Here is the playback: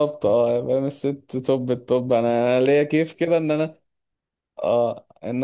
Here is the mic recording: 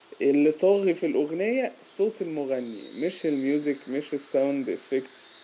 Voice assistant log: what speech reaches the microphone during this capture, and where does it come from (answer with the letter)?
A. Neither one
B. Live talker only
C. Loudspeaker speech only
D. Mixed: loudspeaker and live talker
B